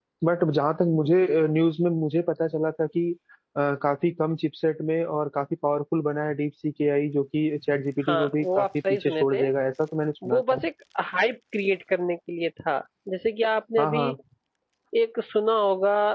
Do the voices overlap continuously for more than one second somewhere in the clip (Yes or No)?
Yes